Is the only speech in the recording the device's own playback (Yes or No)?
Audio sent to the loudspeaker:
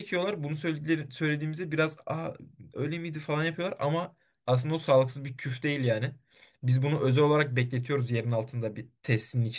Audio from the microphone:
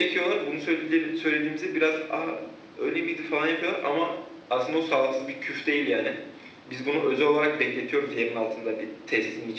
Yes